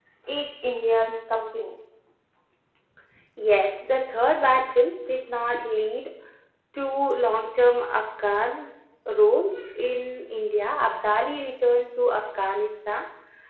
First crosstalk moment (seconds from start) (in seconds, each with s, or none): none